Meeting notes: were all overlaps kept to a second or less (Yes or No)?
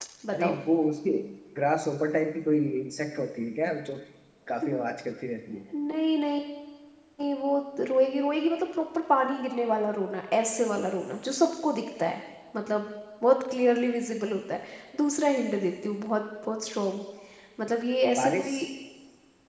Yes